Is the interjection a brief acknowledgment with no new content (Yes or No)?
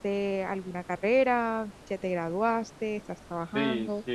No